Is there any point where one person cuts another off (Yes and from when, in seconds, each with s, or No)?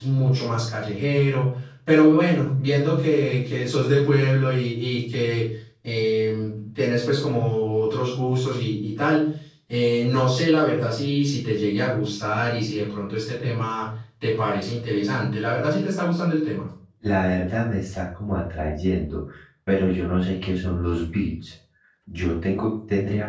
No